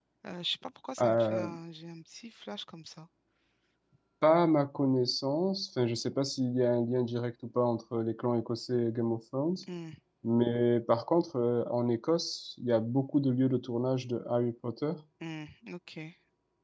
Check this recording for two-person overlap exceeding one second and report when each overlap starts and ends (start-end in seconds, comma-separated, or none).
none